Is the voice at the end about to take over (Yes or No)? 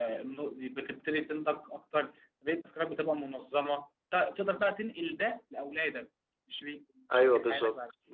Yes